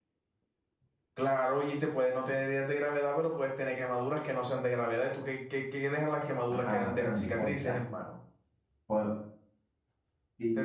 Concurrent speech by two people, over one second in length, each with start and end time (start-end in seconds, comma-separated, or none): 6.5-7.8